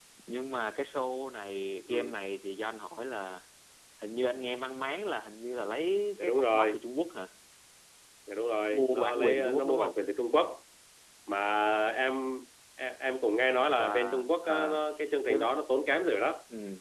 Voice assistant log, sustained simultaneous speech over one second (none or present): present